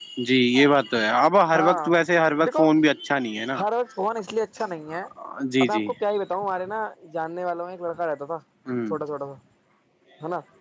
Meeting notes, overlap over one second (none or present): none